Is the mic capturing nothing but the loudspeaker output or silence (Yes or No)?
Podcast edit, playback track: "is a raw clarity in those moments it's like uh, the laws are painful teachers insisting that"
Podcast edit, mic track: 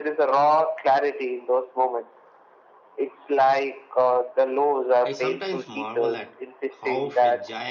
No